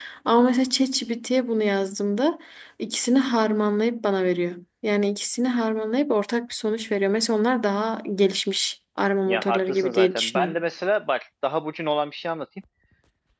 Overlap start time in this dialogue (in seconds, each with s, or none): 9.2 s